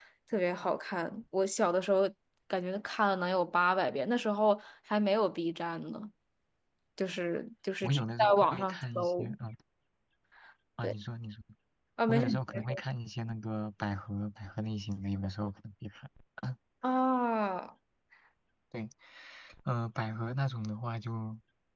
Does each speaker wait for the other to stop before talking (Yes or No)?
No